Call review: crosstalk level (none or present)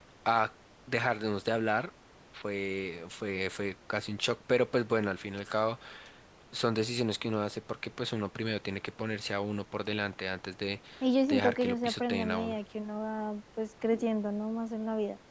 present